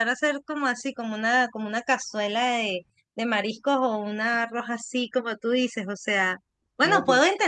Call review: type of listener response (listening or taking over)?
listening